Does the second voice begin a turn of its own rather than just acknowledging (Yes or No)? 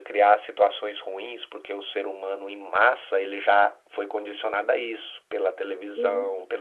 No